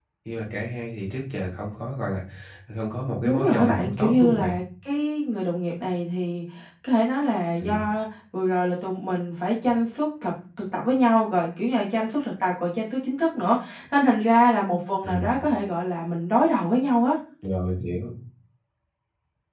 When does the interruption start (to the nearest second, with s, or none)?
3 s